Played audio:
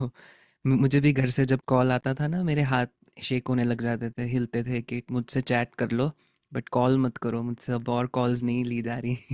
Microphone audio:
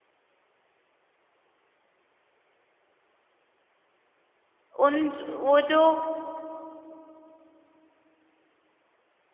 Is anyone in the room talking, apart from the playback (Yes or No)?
Yes